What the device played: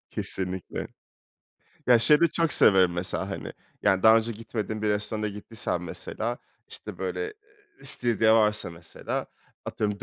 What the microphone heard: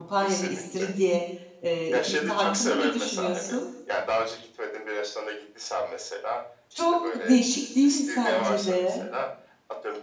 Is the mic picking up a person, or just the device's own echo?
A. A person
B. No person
A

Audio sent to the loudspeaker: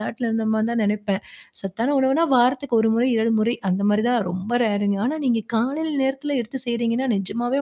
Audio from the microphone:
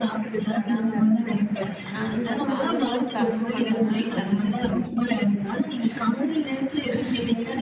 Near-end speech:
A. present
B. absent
A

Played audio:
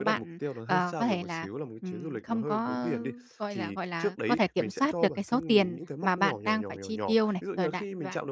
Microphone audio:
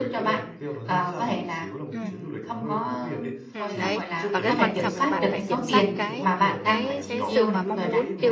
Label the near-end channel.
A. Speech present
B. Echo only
A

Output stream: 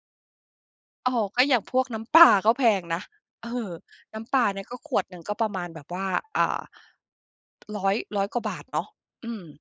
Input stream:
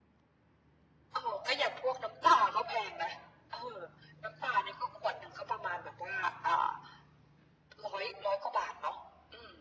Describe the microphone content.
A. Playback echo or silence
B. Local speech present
A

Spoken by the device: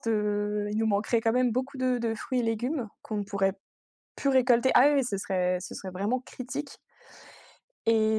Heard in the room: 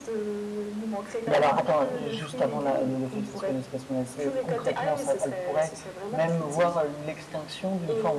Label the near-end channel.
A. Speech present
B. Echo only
A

